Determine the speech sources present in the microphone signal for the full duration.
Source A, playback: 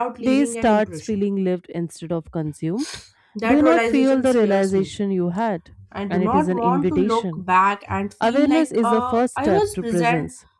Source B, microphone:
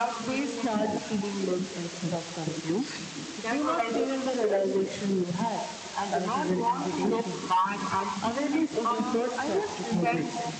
echo only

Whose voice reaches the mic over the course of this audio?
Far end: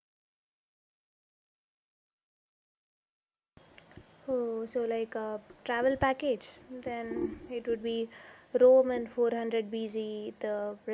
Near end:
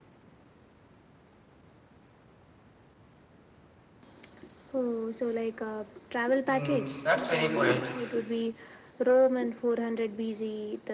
both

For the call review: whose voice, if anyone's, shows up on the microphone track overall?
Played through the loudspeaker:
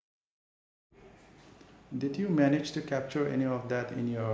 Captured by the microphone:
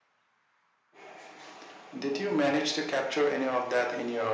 echo only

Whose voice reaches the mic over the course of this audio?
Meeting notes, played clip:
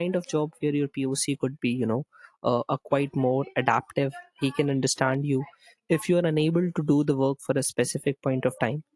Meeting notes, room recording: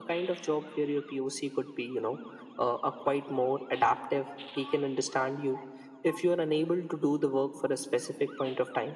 echo only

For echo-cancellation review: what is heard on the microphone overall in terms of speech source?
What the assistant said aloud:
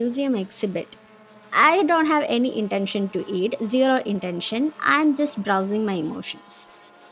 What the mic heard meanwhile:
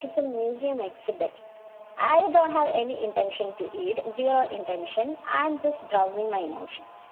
echo only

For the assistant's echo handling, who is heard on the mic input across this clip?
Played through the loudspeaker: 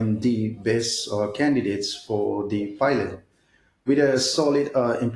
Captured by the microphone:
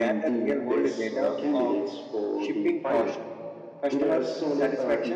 both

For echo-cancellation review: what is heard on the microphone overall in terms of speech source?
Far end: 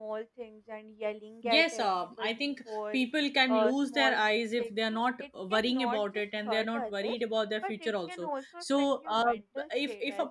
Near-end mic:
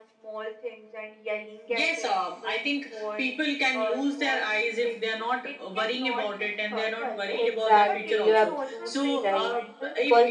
both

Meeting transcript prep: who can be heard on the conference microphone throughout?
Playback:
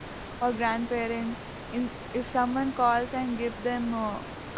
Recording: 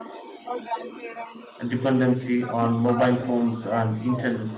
both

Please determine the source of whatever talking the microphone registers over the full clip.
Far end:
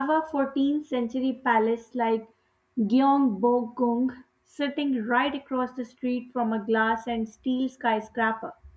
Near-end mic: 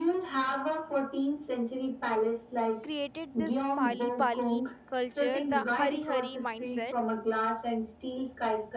both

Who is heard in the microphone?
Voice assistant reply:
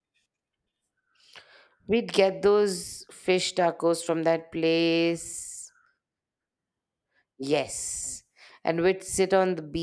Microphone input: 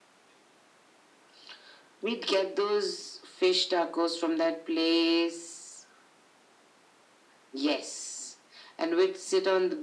echo only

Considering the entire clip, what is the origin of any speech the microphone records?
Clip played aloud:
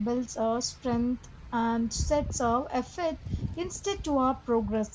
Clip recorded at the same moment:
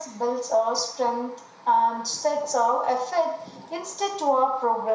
echo only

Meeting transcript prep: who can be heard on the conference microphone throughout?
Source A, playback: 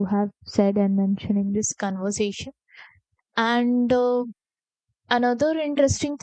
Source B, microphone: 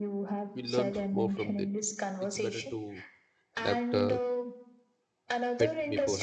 both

